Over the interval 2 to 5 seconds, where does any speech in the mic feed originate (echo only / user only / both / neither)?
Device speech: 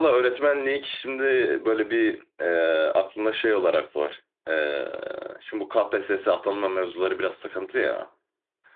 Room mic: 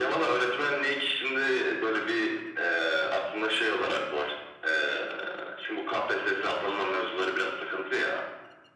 echo only